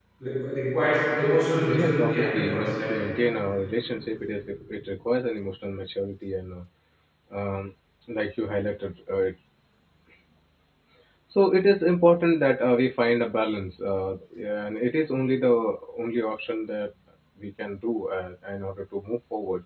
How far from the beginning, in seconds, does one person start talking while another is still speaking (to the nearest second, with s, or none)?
2 s